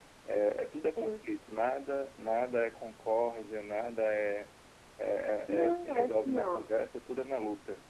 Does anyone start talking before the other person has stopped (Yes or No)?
Yes